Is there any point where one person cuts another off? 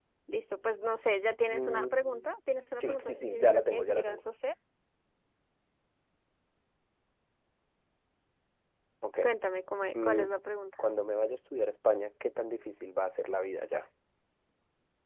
Yes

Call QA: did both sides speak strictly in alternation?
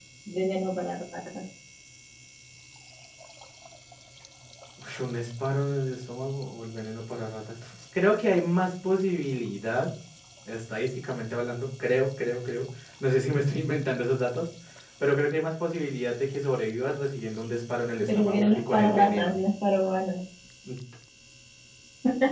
No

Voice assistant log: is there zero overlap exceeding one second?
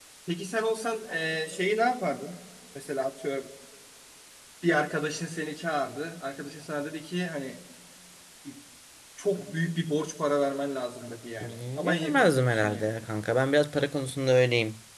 No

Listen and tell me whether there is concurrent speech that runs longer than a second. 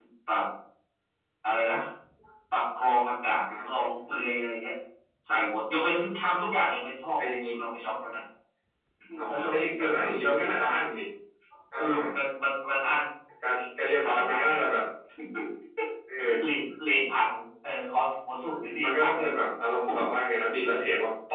Yes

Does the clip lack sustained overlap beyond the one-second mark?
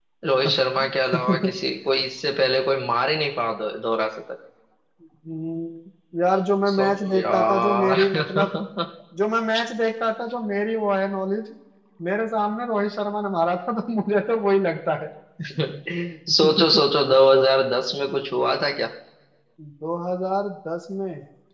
No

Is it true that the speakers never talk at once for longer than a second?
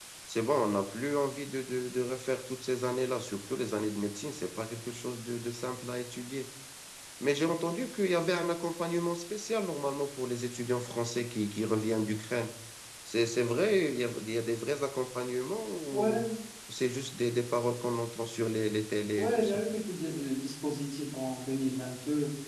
Yes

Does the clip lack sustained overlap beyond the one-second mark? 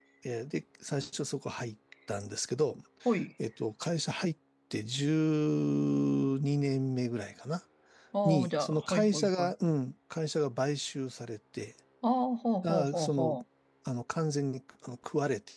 No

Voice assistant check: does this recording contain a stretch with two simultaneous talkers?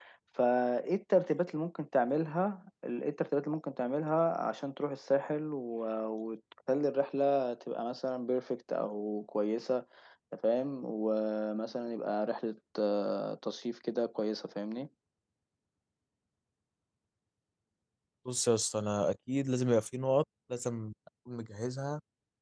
No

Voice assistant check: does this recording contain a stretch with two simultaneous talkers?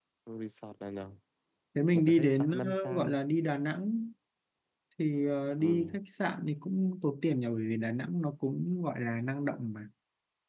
Yes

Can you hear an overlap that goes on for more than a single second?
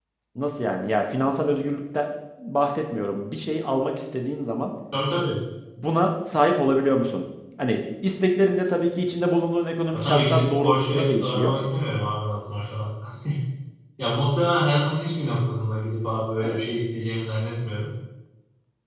Yes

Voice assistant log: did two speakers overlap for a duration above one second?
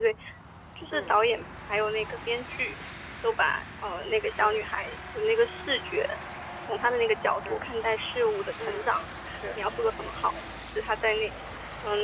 No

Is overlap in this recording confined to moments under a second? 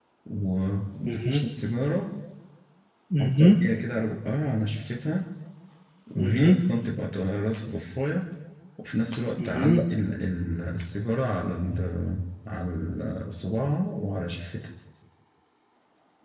Yes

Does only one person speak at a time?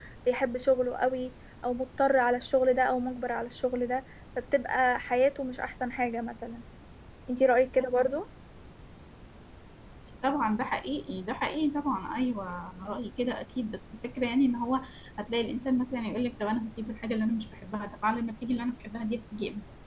Yes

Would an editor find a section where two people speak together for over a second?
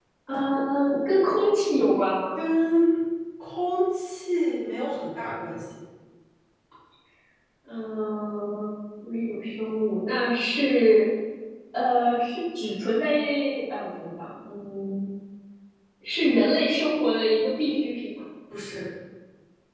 No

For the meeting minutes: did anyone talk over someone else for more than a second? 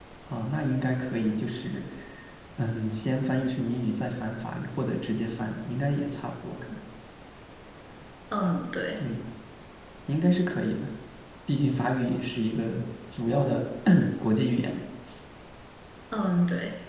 No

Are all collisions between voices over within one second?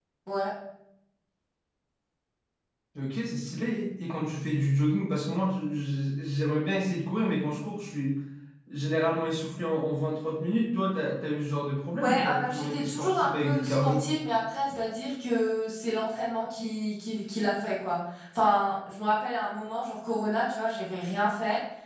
No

